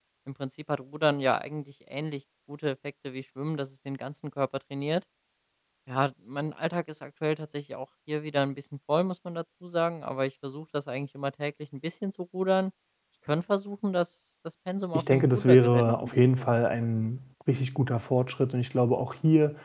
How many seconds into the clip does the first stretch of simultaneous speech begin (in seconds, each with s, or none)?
14.9 s